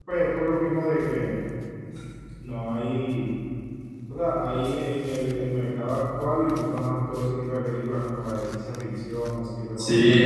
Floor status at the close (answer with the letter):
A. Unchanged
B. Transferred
B